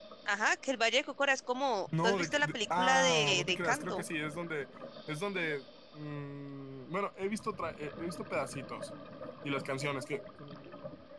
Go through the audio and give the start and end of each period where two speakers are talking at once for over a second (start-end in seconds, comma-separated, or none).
2.0-4.1